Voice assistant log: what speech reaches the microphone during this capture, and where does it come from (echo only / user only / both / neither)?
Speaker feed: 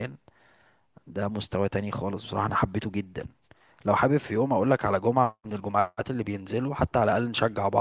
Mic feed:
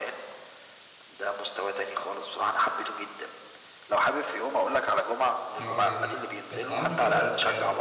both